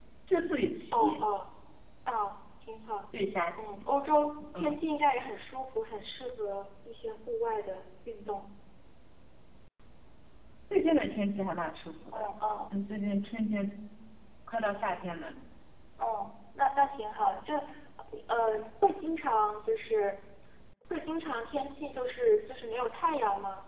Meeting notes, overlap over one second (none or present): none